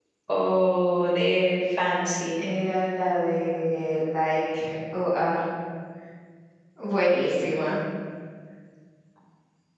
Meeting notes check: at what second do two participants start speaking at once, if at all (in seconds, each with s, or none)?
none